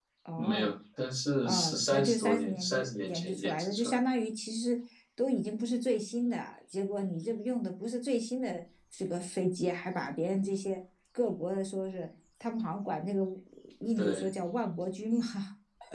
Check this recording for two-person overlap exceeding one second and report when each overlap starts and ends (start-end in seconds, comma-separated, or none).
1.4-4.0